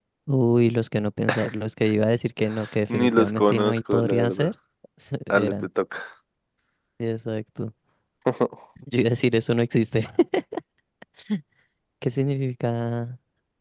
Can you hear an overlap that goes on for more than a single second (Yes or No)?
Yes